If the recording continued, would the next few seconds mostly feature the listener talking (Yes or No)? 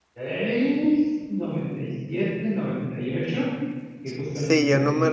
Yes